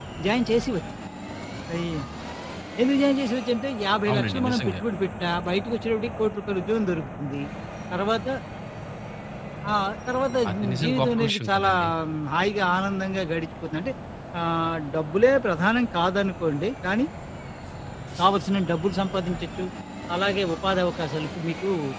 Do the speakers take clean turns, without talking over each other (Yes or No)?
No